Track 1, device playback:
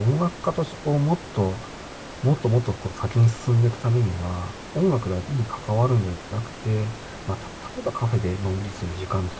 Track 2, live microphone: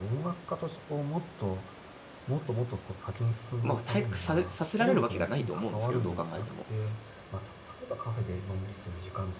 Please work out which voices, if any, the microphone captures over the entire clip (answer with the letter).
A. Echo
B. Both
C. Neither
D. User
B